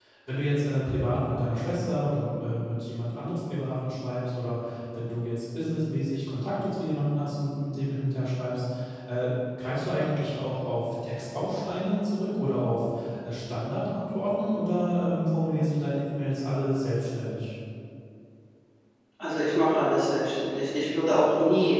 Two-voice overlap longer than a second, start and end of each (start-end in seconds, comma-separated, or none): none